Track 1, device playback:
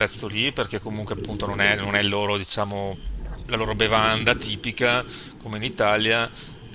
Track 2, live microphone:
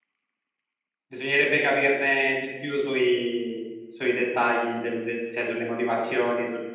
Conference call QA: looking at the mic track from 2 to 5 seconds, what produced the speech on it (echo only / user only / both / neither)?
user only